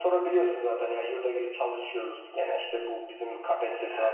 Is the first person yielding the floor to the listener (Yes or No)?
No